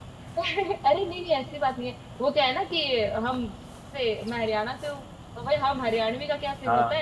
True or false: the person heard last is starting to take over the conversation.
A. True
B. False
B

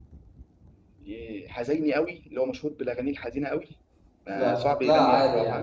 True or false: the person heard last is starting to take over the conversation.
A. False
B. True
B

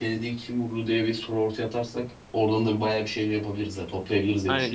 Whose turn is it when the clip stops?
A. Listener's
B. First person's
A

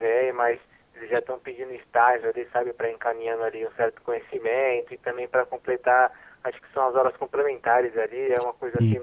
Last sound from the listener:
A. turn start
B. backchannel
B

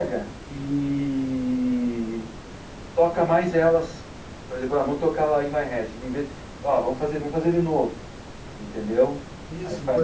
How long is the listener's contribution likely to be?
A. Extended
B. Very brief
A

